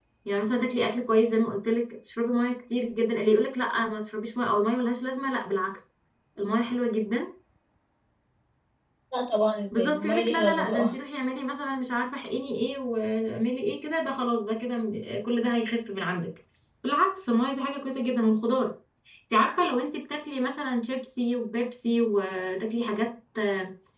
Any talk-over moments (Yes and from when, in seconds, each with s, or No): Yes, from 9.7 s